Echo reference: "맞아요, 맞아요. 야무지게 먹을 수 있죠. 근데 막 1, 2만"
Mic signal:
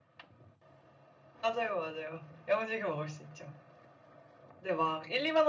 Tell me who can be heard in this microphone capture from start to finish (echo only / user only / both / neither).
echo only